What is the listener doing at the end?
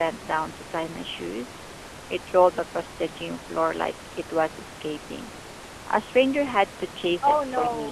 taking over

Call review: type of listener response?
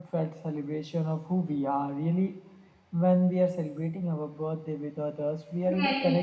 taking over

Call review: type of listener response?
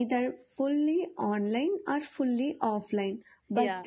listening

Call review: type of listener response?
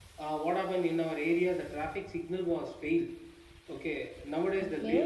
listening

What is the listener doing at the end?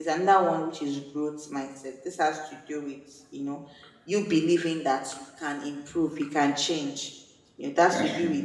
listening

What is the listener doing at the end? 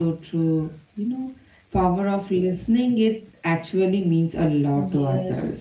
taking over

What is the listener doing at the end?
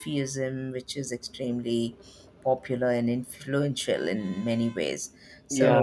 taking over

